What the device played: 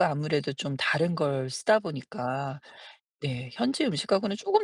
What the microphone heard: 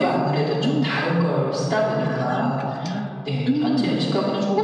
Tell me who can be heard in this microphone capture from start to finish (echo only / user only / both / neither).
both